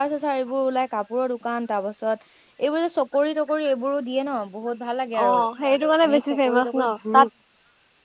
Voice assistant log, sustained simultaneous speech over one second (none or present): present